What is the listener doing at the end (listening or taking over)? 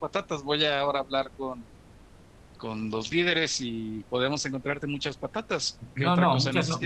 taking over